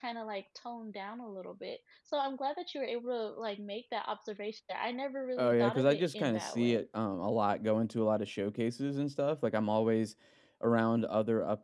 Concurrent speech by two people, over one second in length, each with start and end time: 5.4-6.8

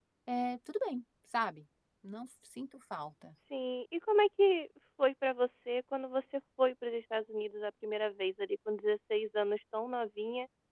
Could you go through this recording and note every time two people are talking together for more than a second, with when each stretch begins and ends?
none

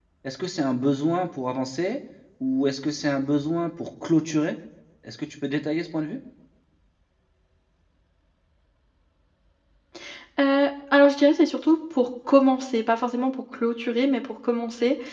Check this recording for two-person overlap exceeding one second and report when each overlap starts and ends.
none

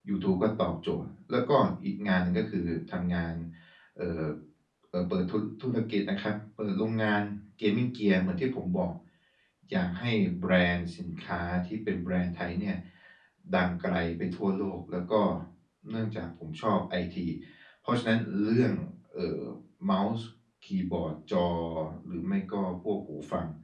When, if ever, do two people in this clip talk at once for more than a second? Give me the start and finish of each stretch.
none

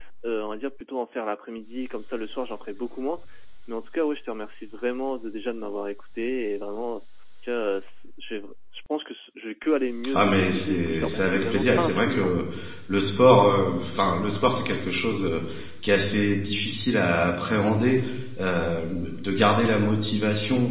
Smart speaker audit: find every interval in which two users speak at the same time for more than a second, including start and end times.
10.1-12.3

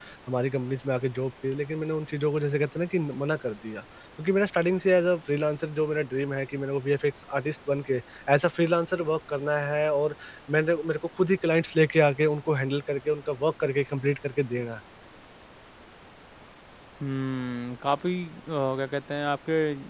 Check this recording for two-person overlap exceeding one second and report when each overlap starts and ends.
none

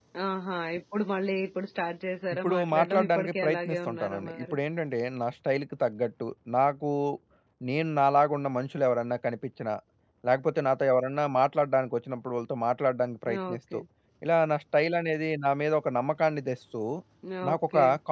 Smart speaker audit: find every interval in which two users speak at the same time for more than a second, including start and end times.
2.4-4.6

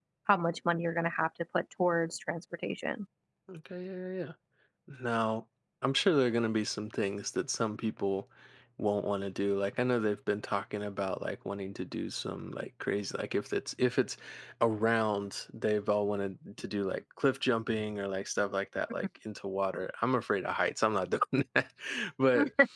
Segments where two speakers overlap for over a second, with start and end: none

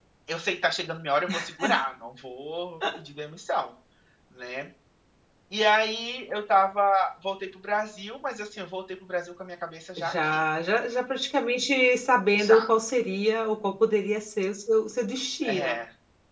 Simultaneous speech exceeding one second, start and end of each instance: none

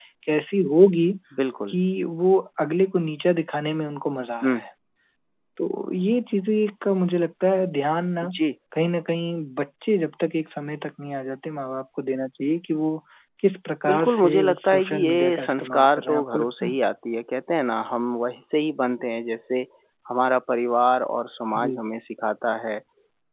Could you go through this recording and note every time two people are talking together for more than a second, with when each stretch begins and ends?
13.9-16.8

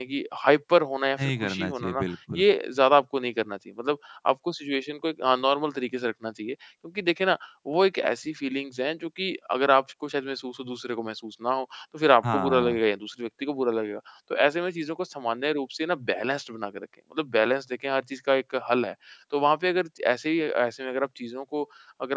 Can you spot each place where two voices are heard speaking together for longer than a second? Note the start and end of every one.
1.2-2.4

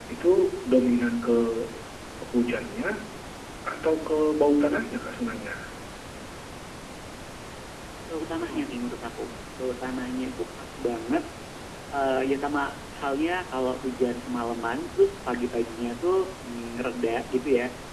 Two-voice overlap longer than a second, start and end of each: none

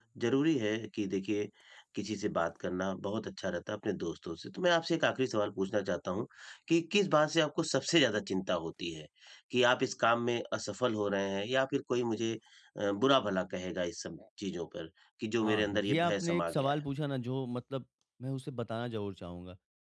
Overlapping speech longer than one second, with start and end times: 15.4-16.8

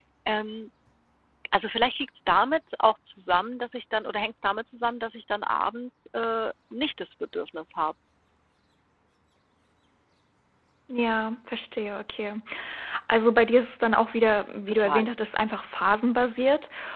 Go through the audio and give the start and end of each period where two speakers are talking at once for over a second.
none

